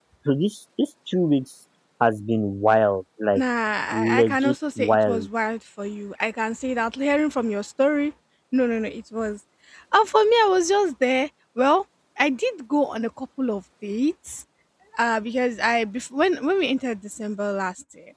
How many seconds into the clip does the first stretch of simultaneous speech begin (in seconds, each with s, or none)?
3.9 s